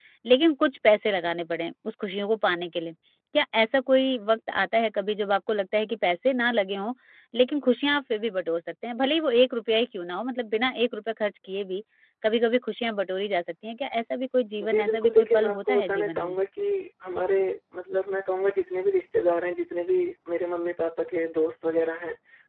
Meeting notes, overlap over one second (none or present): present